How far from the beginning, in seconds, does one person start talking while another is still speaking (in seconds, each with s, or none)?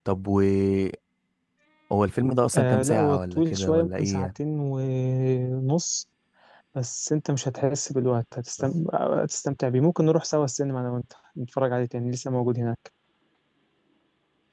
2.5 s